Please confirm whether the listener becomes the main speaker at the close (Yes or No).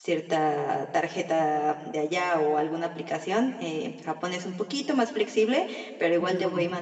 No